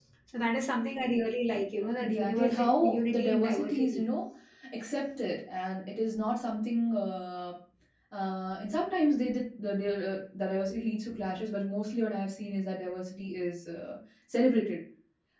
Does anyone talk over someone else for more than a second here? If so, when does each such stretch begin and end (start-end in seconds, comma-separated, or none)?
2.0-4.0